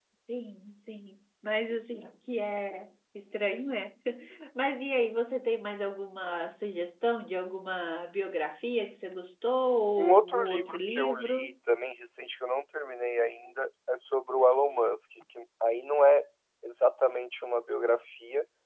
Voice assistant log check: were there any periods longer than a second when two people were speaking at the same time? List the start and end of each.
10.0-11.5

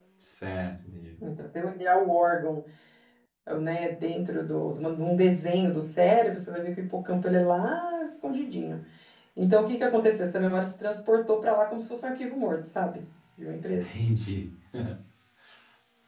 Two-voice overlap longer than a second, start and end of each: none

